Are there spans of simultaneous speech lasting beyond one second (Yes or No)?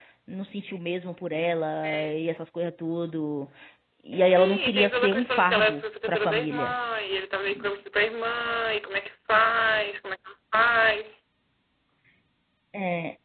Yes